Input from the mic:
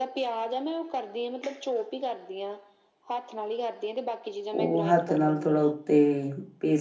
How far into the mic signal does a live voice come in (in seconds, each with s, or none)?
4.6 s